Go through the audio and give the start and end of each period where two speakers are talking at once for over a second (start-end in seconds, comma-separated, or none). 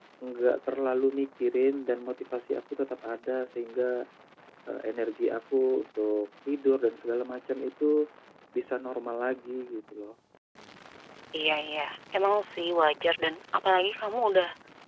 none